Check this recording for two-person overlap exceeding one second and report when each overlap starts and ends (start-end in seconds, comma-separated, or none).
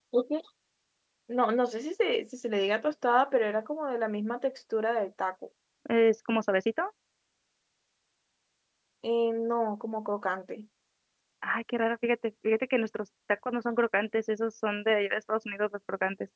none